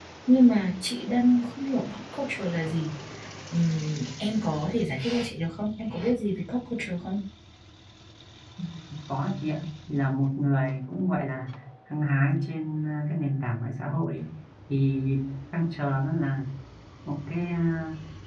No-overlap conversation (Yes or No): Yes